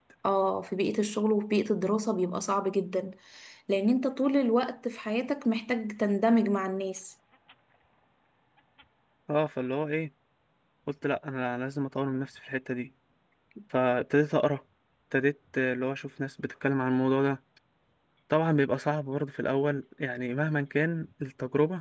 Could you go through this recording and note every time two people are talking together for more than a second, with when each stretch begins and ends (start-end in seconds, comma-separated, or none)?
none